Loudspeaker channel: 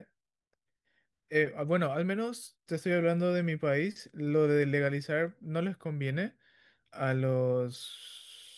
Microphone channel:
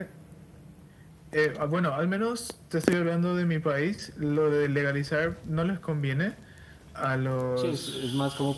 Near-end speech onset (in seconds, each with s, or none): 7.5 s